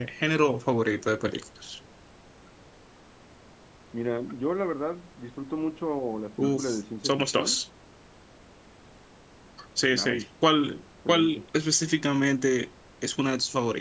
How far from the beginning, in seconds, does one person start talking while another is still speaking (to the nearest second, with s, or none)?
6 s